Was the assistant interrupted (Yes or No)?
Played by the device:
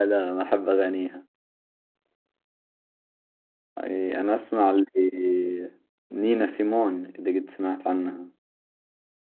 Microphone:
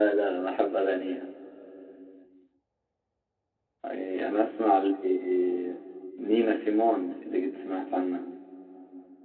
No